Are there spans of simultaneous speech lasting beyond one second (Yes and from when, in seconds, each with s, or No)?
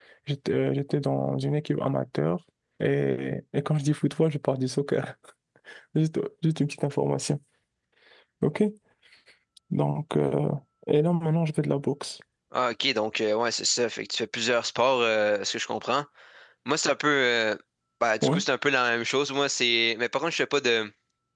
No